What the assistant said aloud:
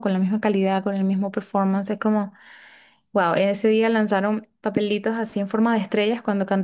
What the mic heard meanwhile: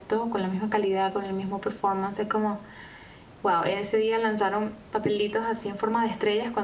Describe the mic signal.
echo only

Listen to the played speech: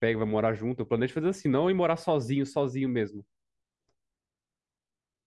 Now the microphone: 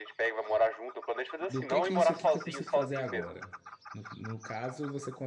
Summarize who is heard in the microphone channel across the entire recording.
both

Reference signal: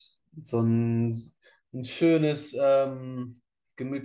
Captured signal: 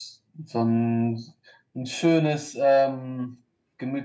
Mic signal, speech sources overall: echo only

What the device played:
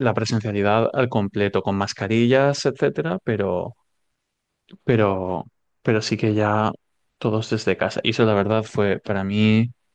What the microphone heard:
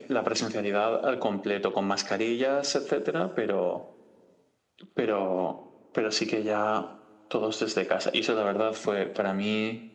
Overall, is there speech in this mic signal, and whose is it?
echo only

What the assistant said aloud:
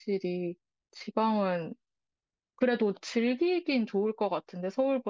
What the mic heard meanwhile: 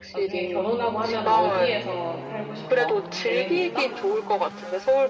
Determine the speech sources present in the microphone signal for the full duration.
both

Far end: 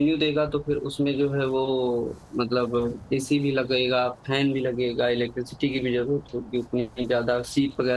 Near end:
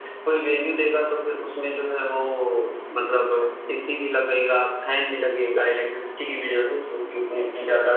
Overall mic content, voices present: echo only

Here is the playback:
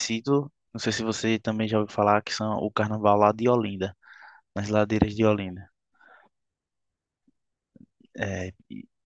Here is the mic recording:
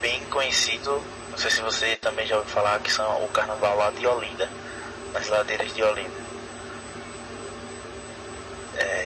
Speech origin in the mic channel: echo only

